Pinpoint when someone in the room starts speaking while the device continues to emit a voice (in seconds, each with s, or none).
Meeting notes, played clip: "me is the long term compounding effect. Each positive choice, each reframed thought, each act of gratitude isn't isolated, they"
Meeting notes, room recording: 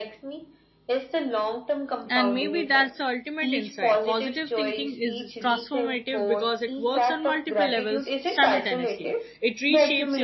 2.1 s